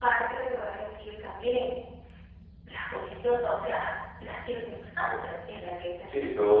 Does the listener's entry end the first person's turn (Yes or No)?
Yes